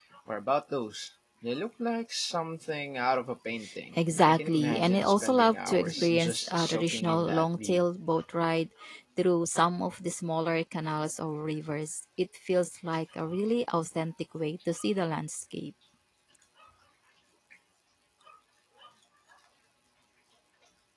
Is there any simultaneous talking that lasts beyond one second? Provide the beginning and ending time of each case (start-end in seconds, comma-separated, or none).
4.0-7.8